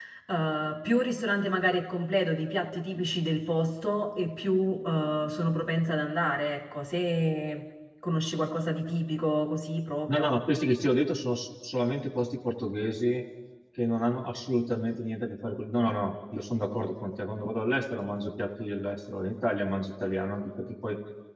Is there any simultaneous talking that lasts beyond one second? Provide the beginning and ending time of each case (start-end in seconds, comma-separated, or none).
none